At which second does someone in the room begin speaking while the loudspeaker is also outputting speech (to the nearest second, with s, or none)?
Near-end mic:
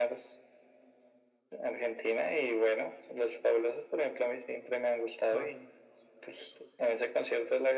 5 s